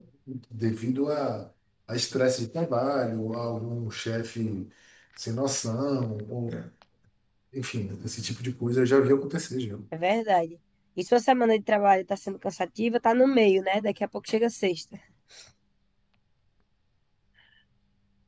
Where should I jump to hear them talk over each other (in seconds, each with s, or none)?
none